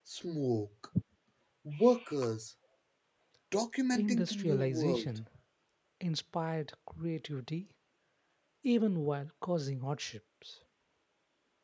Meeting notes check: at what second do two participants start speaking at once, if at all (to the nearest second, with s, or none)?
4 s